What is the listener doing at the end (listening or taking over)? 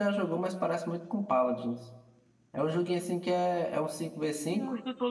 taking over